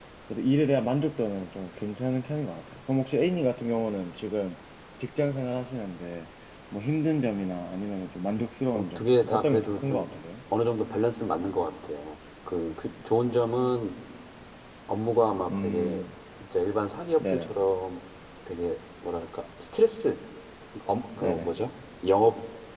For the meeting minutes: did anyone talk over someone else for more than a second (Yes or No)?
Yes